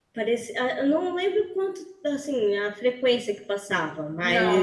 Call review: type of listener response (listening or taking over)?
listening